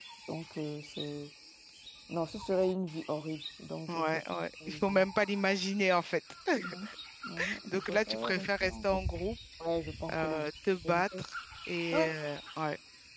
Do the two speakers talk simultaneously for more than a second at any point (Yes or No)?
Yes